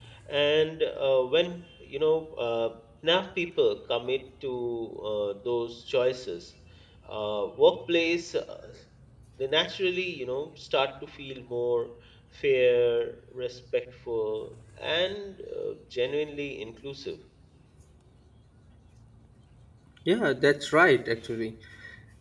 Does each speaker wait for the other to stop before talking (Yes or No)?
Yes